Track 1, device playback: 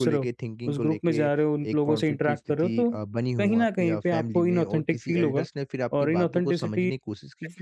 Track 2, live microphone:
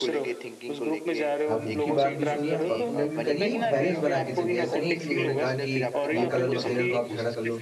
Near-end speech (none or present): present